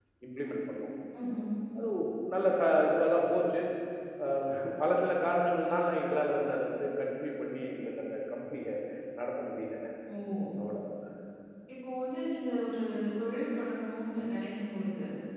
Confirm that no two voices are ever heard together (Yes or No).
Yes